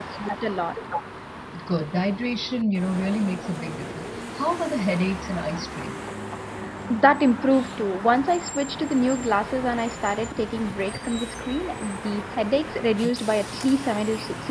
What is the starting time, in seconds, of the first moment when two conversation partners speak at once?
none

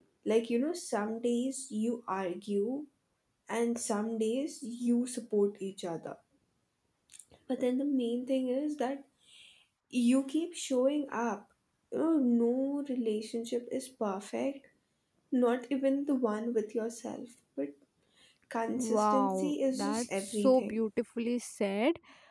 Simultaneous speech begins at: 19 s

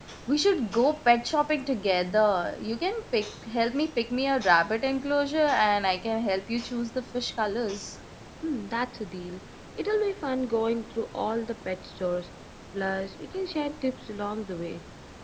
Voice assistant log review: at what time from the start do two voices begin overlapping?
none

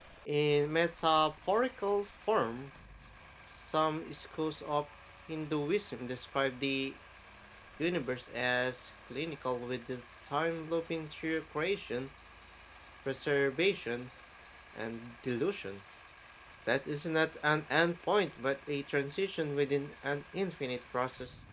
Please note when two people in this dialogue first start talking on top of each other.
none

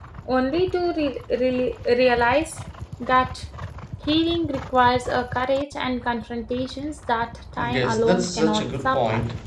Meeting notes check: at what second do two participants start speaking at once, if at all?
8 s

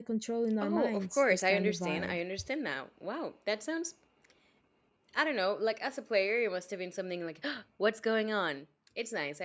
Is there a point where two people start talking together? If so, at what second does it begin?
1 s

